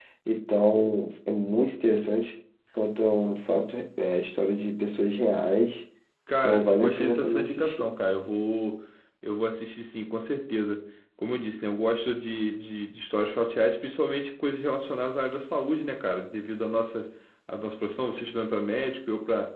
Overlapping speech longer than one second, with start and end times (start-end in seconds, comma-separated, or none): 6.4-7.9